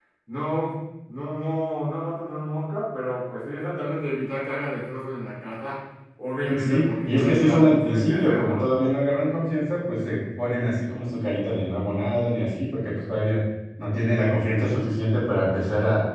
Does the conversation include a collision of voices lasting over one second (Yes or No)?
Yes